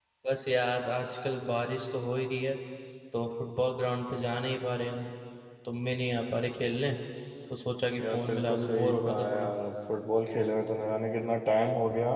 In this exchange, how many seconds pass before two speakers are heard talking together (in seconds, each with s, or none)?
8.0 s